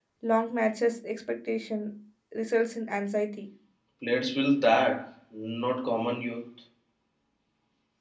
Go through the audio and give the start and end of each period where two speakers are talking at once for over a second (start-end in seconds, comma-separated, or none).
none